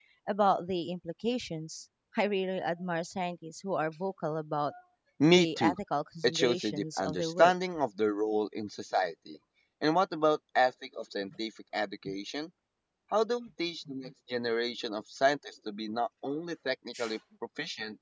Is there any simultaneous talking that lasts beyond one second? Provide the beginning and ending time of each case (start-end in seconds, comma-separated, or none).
6.2-7.5